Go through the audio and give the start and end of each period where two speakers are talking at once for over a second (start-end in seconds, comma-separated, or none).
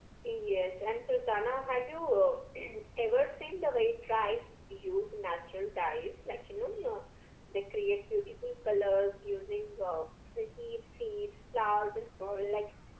none